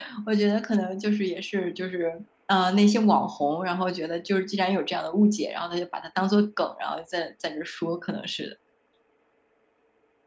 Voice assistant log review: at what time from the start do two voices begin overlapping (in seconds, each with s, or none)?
none